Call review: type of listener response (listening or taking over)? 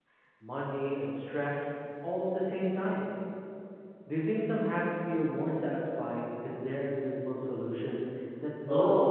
taking over